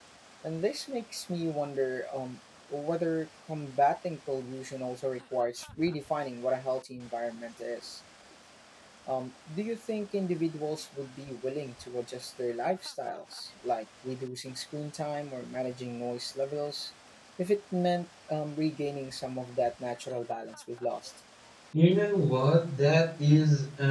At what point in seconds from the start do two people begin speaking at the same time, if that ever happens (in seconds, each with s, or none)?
none